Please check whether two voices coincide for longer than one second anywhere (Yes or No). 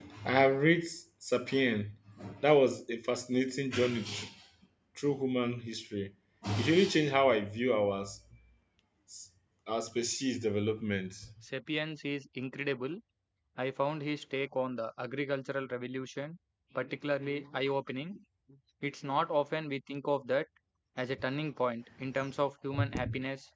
No